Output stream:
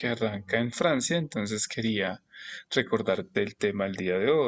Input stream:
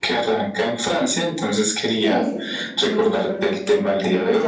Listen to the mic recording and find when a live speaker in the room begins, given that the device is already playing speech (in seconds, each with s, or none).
2.0 s